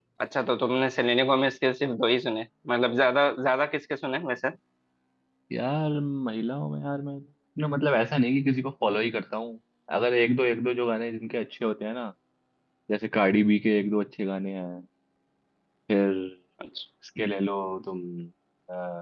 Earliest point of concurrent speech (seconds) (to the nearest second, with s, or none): none